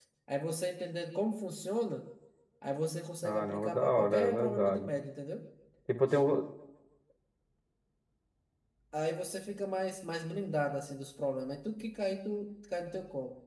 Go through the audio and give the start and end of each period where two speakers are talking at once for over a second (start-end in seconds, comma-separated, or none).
3.2-4.9